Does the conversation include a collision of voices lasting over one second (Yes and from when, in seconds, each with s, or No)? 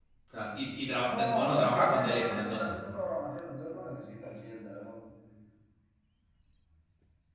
Yes, from 1.1 s